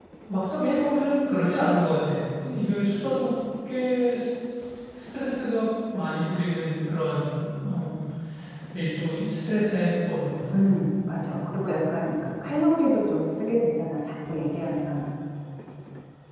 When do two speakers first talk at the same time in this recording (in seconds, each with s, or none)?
none